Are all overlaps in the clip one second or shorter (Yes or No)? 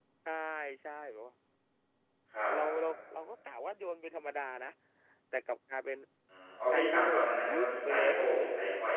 No